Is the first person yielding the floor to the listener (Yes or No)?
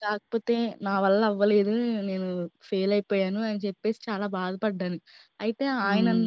No